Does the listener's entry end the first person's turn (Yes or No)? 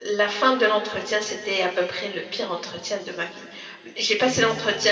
No